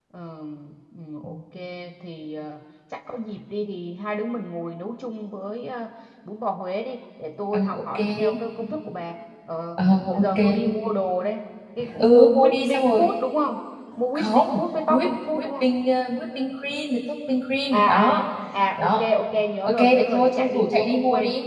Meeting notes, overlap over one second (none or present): present